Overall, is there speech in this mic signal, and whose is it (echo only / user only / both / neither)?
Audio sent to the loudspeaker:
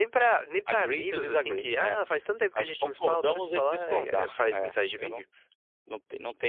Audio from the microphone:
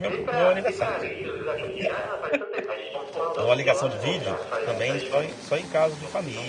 both